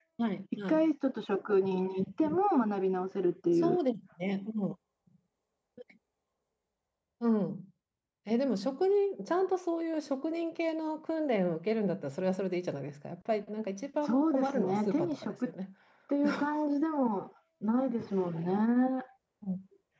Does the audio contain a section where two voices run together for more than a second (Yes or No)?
Yes